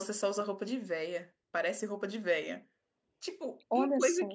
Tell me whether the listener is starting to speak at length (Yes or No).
No